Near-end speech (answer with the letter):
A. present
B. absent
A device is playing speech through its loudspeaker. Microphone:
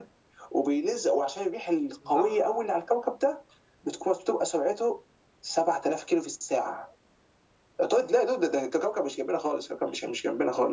A